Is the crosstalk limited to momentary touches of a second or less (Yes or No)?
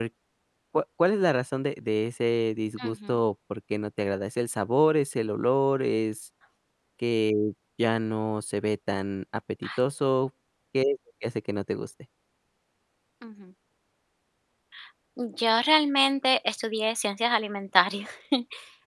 Yes